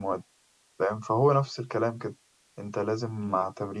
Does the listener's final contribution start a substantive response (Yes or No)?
No